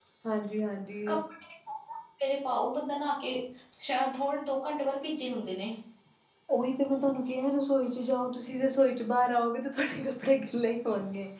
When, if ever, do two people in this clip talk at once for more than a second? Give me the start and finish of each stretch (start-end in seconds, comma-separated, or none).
none